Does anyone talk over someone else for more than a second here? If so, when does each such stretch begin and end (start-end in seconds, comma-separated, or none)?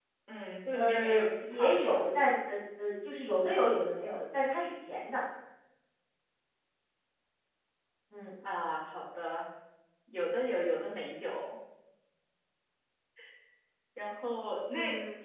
0.7-2.0